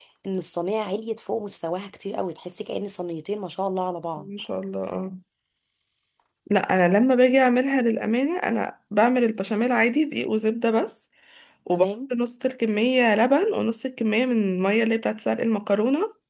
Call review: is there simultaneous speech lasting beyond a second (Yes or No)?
No